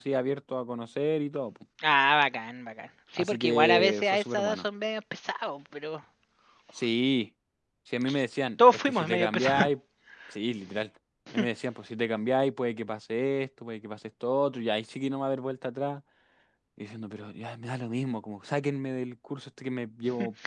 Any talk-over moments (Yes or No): Yes